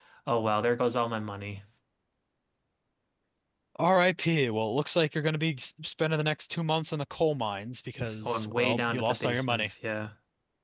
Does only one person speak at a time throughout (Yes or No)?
No